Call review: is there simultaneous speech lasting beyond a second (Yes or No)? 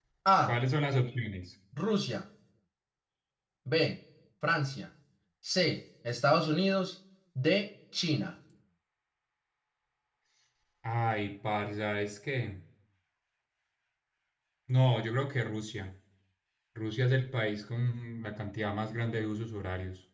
No